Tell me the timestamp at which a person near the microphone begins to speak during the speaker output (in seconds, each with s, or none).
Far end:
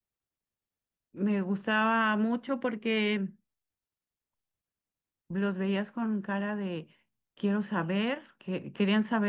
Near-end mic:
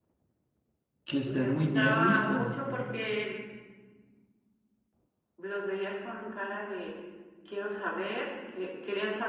1.0 s